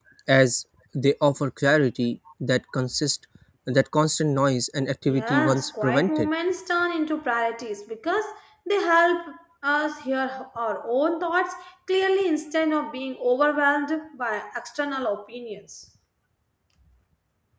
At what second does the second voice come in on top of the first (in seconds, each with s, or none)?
5.1 s